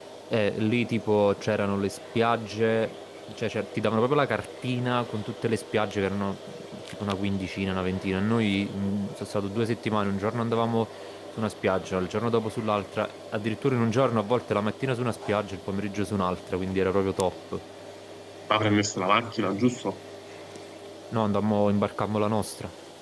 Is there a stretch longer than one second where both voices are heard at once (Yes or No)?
No